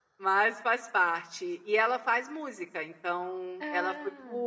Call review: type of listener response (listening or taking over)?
listening